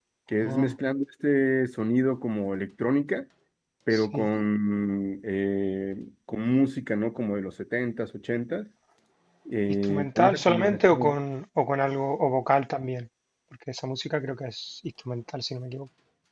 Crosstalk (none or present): present